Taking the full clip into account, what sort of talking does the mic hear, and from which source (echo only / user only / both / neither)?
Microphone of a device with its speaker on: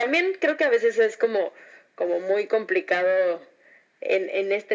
echo only